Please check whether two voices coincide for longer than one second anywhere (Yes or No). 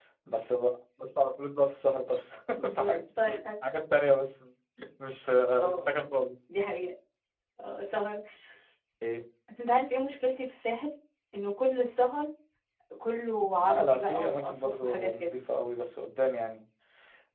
Yes